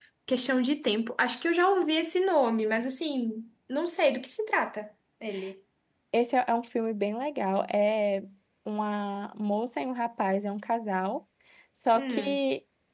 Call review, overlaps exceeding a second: none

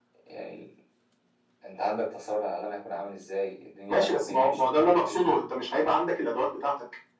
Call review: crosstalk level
present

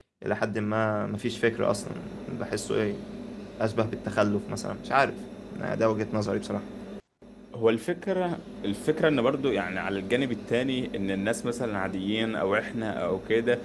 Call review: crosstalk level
none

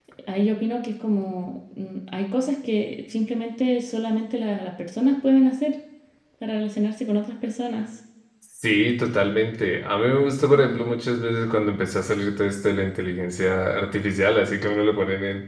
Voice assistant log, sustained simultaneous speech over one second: none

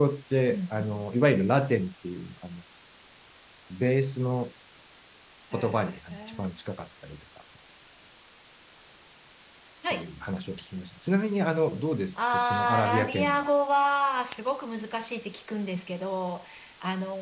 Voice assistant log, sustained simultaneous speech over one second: present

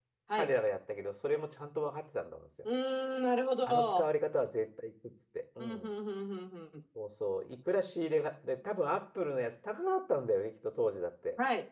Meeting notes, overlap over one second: none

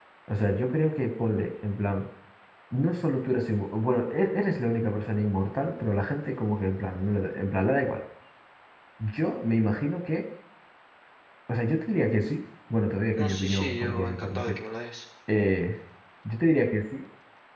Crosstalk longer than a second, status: present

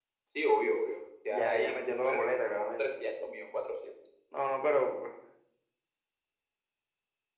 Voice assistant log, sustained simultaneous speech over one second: none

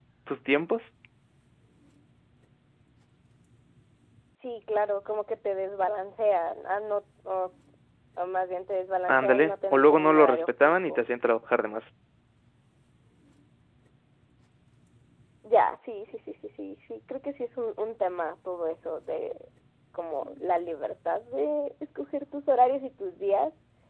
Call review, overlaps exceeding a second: present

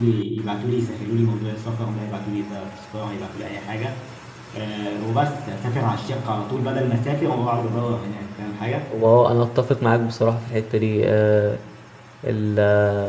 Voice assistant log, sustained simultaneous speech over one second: none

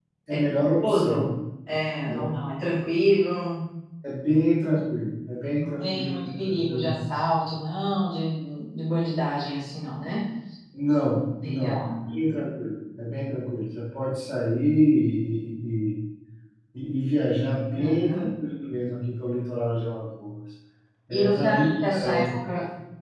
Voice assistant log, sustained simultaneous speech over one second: present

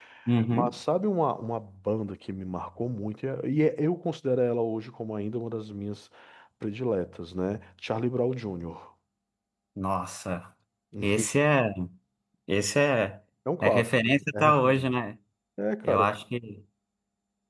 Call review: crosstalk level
present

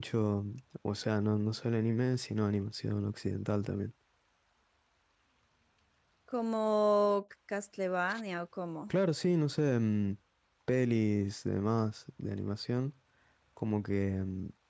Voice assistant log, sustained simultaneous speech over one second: none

